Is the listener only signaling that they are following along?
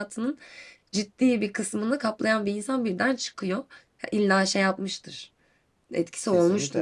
No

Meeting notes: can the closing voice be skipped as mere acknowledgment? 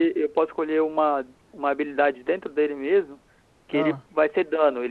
Yes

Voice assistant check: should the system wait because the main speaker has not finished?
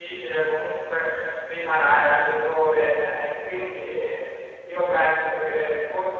Yes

